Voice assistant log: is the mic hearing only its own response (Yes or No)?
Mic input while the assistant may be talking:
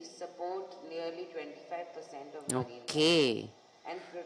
No